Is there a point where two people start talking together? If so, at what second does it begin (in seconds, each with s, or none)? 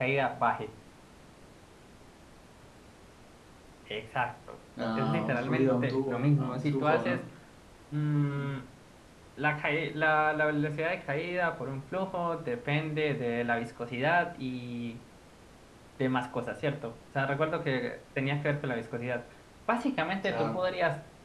5.0 s